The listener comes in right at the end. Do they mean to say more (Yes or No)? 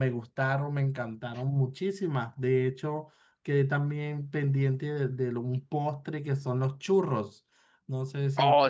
Yes